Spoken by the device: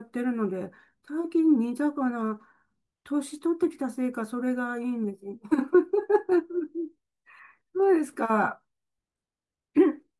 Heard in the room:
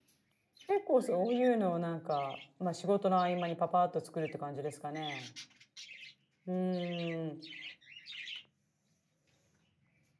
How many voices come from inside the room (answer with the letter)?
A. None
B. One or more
B